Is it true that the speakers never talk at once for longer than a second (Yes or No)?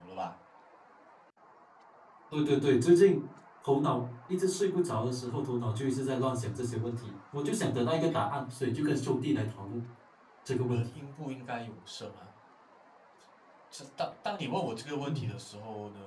Yes